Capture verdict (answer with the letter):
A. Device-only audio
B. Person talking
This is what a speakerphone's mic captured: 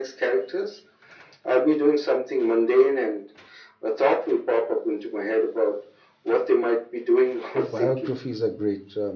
B